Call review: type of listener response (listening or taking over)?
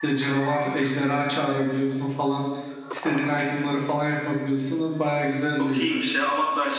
taking over